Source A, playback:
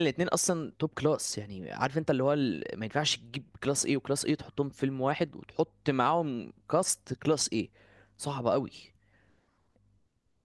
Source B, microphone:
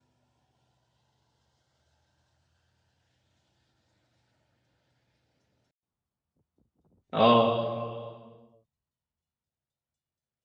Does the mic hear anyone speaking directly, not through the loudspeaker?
Yes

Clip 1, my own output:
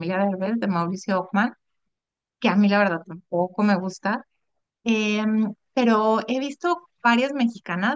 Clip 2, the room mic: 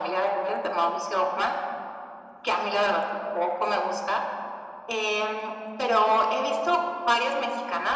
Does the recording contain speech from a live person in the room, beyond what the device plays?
No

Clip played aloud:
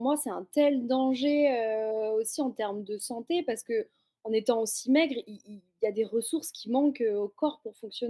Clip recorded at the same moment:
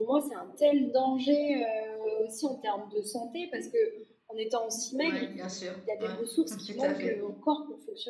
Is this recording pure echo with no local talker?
No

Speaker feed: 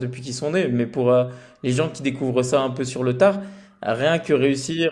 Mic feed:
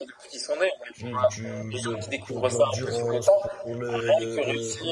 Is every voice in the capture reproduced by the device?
No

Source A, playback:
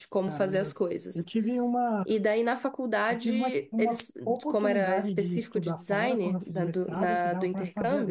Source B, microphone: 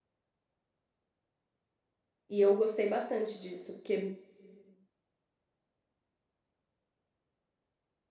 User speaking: Yes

